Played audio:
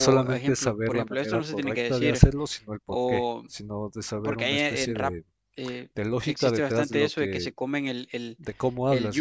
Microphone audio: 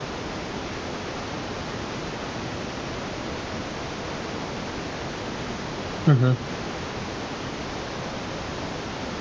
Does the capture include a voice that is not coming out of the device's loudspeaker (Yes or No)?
Yes